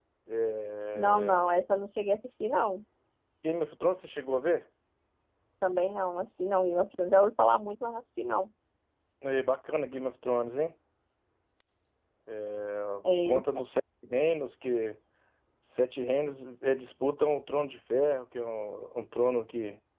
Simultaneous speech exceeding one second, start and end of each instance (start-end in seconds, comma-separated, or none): none